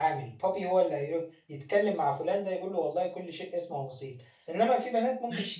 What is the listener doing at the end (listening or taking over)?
taking over